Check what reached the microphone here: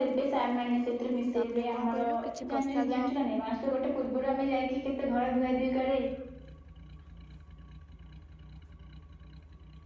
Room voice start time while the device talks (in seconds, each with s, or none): 1.4 s